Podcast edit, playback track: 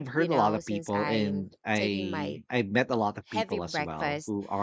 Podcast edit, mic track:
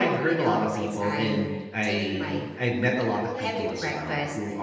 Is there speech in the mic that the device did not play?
Yes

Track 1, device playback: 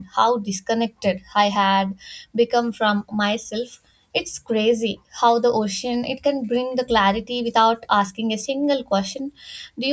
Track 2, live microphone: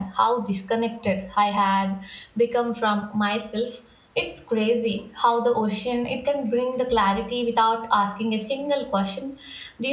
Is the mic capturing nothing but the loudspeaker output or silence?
Yes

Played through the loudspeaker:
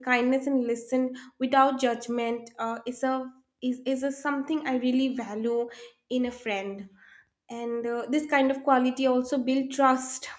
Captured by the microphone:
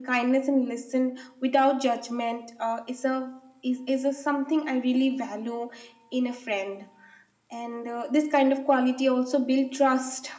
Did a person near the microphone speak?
No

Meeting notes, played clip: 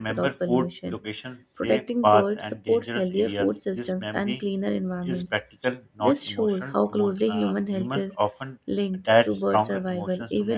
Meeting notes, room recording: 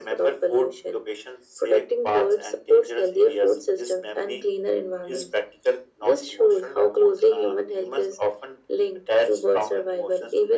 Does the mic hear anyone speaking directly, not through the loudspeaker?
No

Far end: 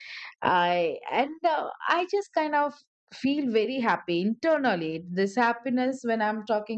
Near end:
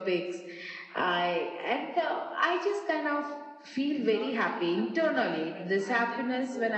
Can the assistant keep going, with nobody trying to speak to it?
No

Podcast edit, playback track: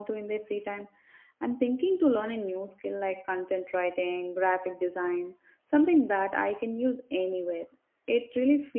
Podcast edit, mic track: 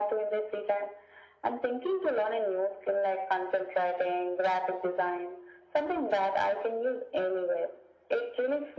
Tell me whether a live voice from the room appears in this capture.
No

